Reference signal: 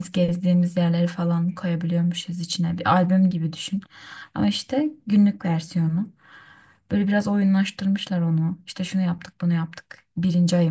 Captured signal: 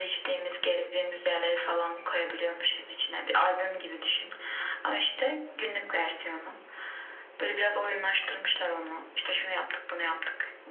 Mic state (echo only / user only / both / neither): echo only